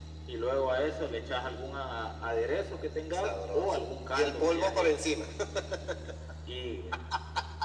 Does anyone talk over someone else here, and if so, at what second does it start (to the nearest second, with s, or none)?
3 s